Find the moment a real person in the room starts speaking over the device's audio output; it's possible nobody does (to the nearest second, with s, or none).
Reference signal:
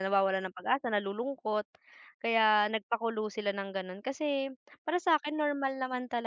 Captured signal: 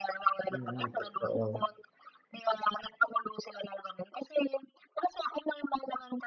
0 s